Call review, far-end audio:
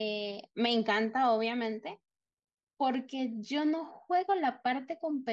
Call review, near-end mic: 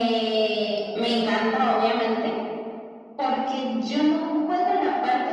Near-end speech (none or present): none